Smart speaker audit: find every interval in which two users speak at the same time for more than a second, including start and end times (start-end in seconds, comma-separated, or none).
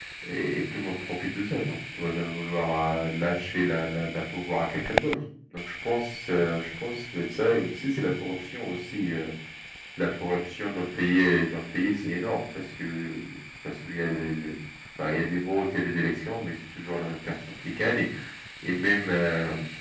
none